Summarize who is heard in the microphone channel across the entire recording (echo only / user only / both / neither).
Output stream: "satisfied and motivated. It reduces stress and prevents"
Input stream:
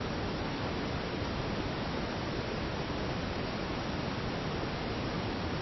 neither